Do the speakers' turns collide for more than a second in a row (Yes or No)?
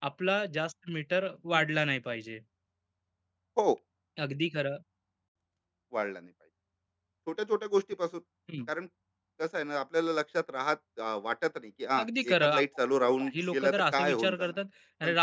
Yes